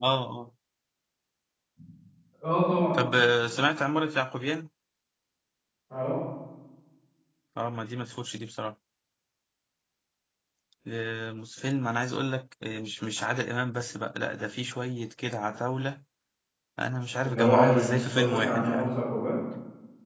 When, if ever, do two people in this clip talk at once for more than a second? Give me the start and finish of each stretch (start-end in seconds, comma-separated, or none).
17.2-18.9